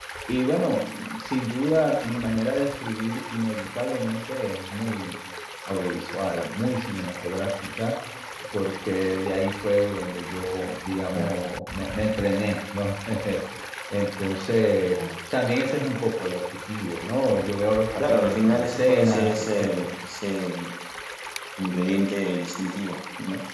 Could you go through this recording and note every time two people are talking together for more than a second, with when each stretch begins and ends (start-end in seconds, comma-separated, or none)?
18.0-19.9